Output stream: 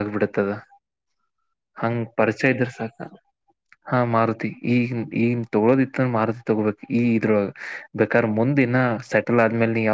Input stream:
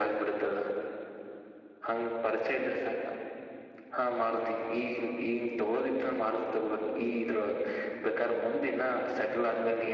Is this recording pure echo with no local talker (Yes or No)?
Yes